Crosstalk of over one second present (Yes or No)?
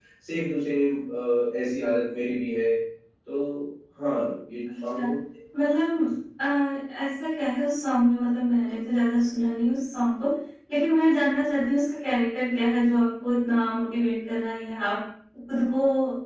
No